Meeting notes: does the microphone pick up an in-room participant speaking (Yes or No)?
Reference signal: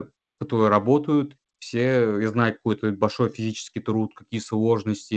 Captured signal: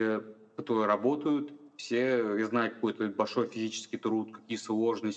No